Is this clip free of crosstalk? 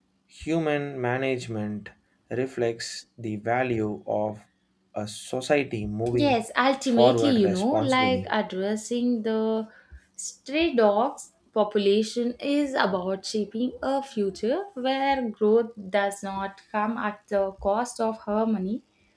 No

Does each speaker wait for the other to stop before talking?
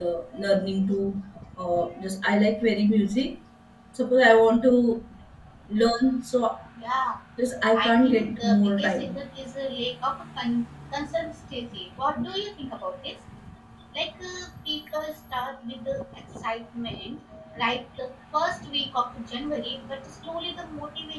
No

